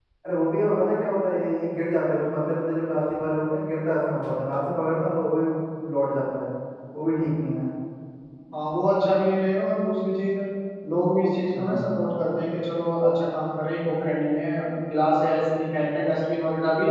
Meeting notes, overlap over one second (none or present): none